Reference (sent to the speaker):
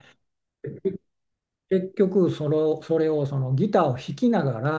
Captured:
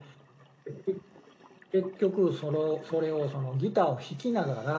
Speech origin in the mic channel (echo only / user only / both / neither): echo only